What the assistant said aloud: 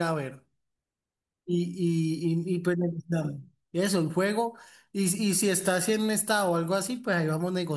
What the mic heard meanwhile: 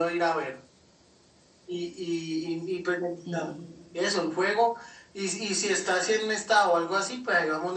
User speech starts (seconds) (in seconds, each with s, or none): 3.2 s